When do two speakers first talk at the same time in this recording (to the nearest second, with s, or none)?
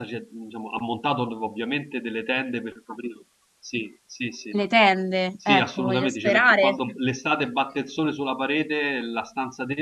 5 s